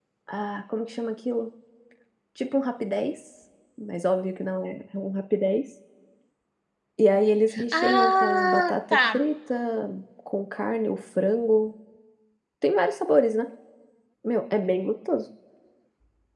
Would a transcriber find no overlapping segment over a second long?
No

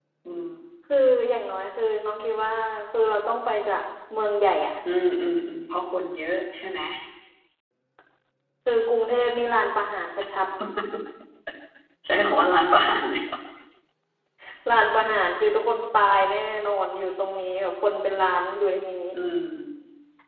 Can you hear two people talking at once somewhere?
No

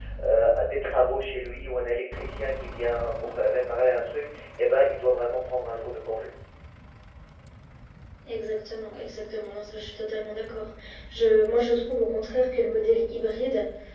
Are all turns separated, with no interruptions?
Yes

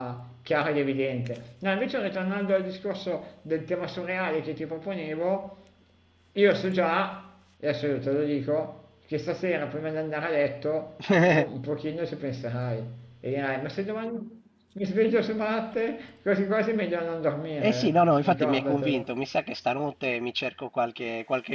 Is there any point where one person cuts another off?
Yes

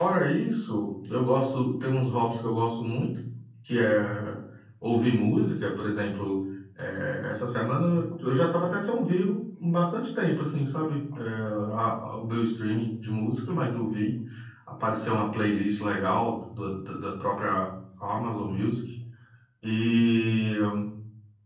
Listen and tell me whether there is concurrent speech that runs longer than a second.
No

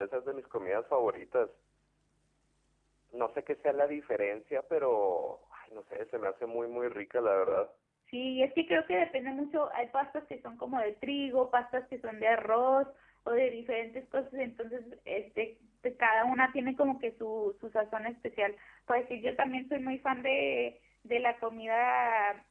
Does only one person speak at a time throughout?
Yes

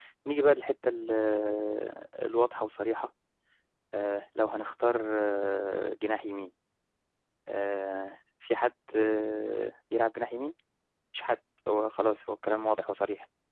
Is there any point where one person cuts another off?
No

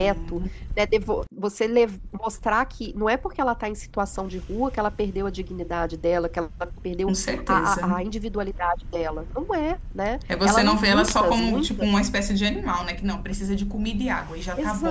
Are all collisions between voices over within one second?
No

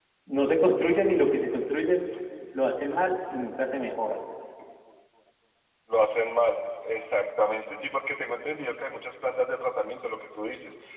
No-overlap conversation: Yes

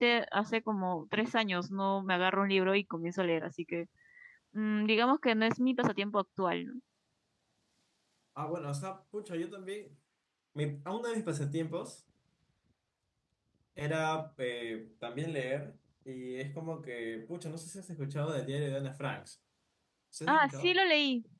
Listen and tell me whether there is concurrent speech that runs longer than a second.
No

